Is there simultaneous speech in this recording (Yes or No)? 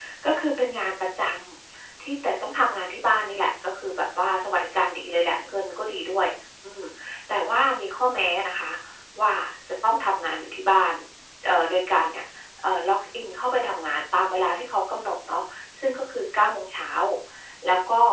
No